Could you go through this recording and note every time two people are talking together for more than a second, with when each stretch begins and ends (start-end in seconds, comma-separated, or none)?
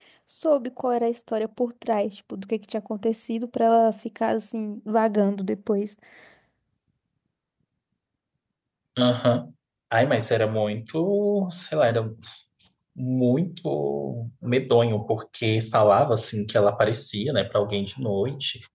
none